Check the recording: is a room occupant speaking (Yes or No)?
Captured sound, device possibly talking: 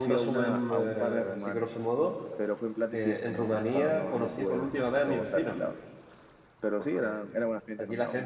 Yes